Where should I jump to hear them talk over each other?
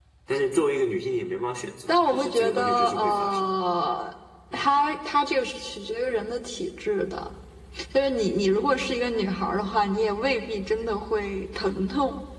1.9 s

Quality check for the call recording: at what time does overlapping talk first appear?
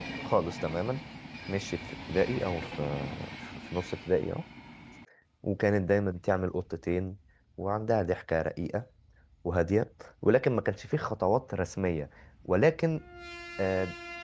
none

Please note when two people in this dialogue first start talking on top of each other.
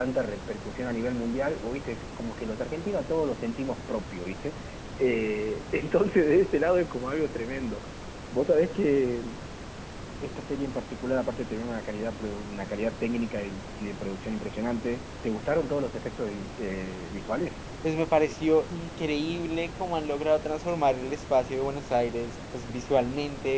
none

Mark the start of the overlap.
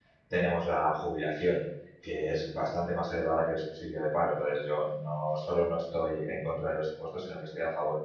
none

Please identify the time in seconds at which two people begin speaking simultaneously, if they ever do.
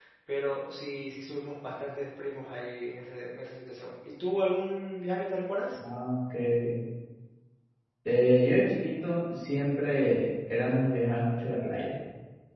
none

